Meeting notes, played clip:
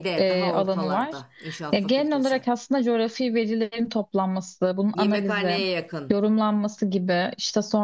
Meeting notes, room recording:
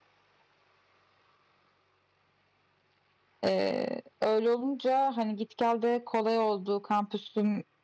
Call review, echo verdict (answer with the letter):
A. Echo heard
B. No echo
B